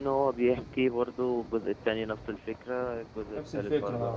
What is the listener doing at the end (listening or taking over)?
listening